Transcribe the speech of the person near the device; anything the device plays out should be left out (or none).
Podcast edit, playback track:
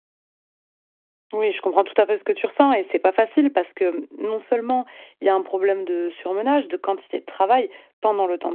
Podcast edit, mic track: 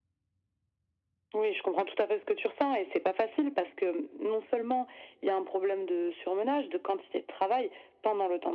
none